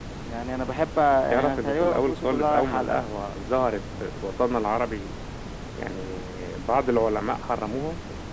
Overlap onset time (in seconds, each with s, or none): 1.3 s